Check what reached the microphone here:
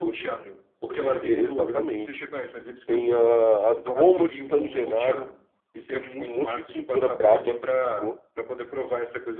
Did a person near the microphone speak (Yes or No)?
Yes